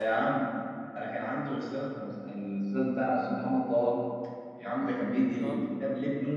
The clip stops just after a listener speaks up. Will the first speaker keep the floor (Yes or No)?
Yes